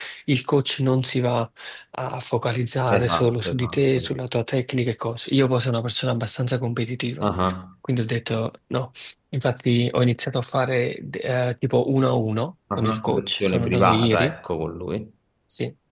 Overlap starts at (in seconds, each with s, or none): 2.9 s